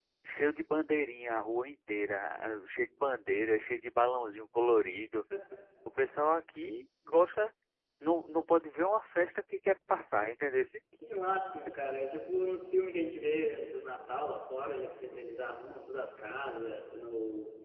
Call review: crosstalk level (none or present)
none